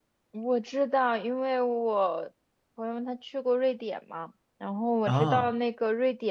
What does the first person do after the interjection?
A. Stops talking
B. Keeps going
B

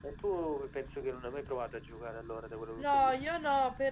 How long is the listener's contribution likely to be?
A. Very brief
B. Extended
B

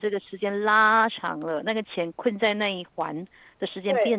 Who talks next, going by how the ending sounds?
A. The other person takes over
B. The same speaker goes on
A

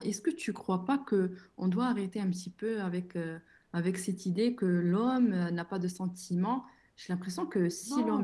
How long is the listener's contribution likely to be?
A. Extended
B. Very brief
A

